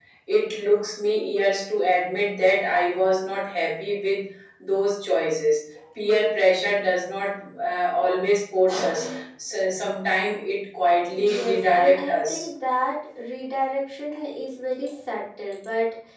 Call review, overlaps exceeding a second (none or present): present